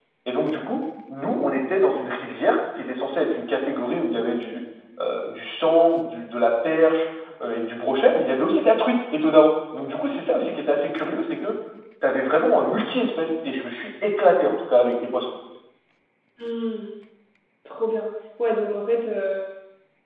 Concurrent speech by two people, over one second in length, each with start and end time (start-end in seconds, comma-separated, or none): none